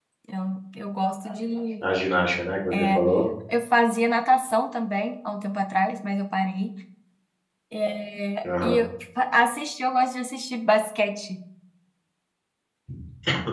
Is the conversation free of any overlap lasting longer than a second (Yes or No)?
Yes